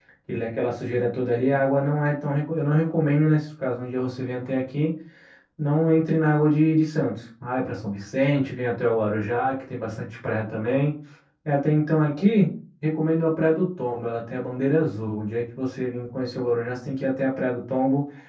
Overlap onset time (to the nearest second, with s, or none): none